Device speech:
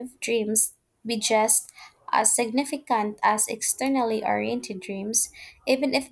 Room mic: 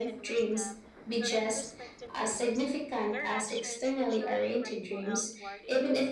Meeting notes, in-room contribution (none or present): present